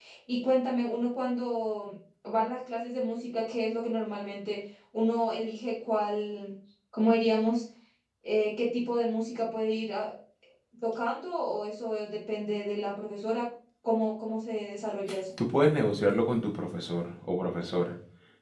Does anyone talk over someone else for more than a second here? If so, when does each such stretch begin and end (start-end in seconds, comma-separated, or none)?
none